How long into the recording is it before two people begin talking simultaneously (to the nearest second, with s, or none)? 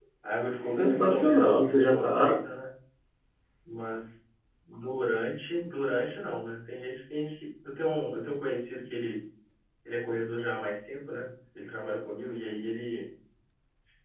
1 s